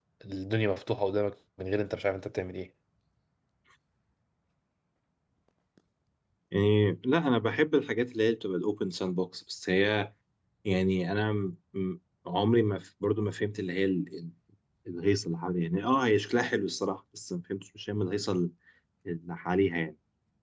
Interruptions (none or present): none